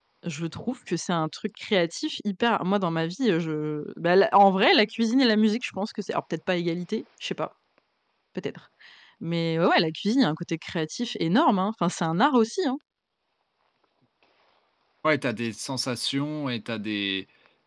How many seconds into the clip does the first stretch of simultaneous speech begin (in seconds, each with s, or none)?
none